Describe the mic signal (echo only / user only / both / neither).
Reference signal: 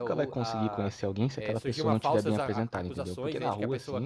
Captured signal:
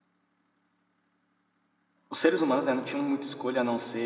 user only